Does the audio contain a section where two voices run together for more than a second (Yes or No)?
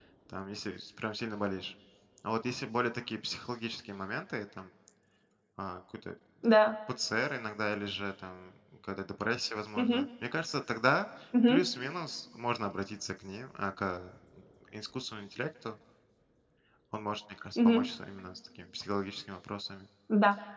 No